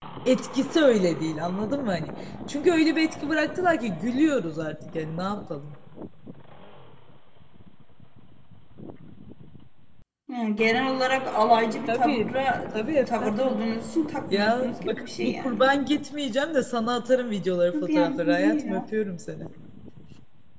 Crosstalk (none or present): present